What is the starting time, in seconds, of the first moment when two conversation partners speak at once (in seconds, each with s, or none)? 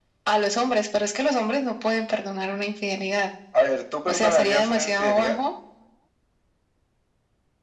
4.1 s